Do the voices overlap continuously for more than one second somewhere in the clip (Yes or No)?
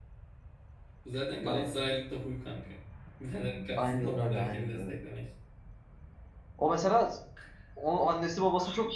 Yes